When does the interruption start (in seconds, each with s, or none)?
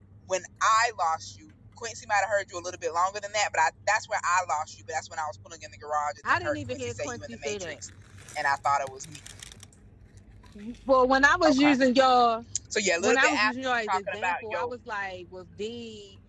6.3 s